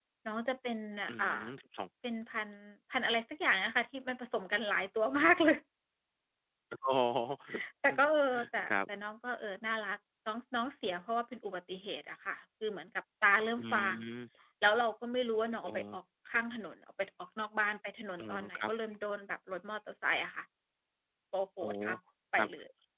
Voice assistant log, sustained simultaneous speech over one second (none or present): none